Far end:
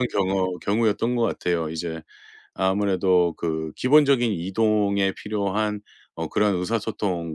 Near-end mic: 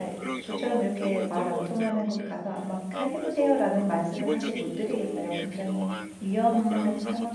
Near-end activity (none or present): present